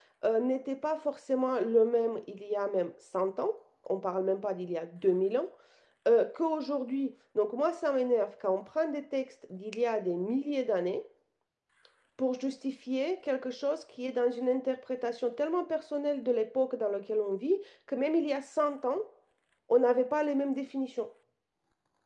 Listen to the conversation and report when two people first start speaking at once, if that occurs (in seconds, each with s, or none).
none